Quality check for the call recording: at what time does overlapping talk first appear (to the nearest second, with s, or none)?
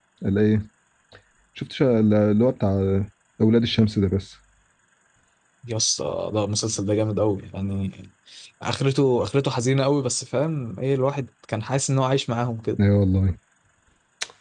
none